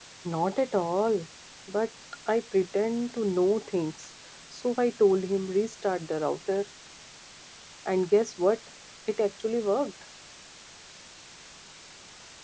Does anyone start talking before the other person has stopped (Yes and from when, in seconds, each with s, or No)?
No